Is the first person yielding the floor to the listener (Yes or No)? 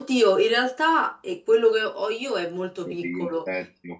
Yes